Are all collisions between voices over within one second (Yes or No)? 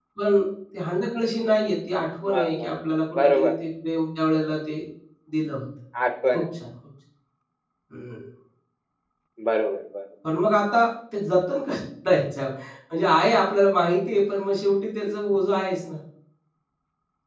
Yes